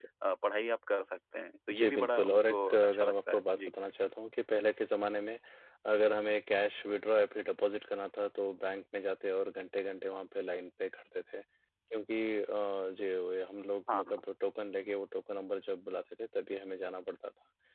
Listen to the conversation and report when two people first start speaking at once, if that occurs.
2 s

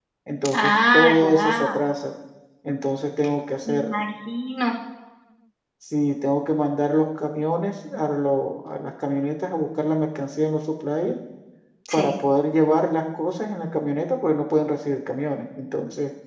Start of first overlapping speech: 1 s

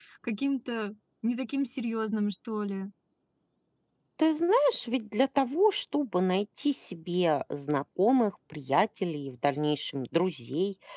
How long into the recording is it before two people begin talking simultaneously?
none

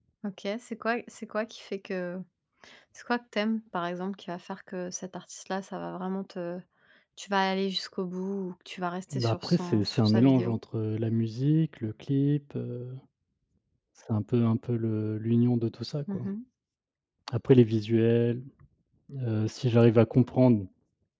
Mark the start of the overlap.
9 s

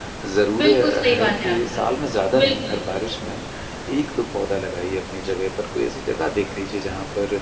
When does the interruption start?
1 s

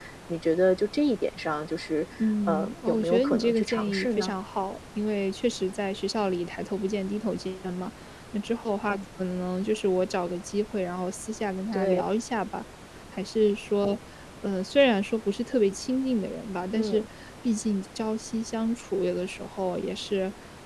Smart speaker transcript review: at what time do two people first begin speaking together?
2 s

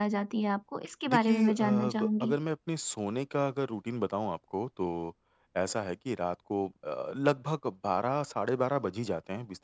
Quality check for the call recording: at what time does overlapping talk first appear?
1 s

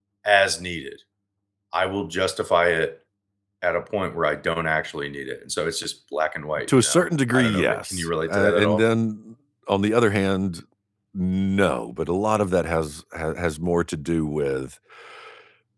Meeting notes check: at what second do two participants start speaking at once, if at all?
7 s

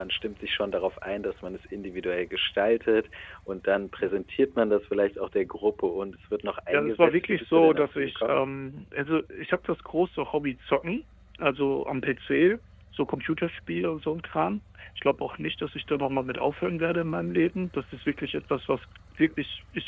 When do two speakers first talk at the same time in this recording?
7 s

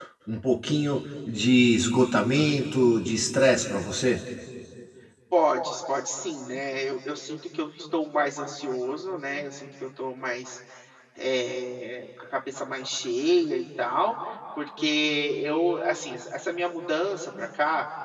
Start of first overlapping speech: none

